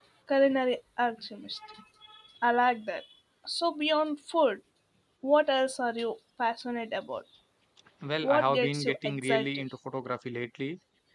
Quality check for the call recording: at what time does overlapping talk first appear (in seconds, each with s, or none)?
8.2 s